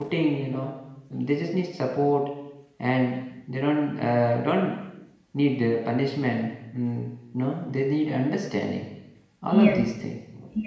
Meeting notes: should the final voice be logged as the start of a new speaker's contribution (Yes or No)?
Yes